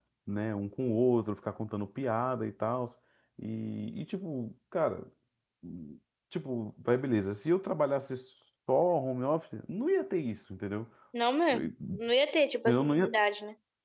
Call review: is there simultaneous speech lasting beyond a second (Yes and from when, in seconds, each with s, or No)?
No